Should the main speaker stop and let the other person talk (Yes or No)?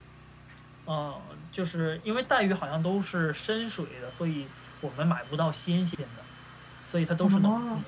No